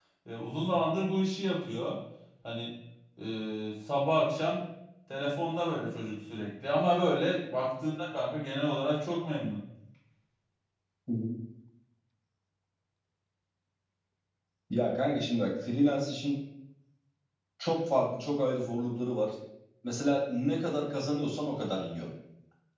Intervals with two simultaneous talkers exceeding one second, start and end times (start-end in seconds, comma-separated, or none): none